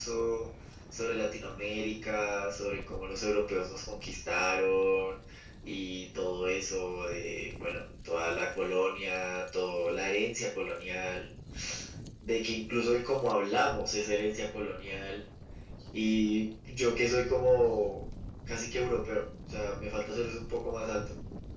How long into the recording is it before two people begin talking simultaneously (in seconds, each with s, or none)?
none